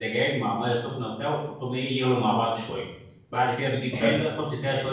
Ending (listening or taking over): listening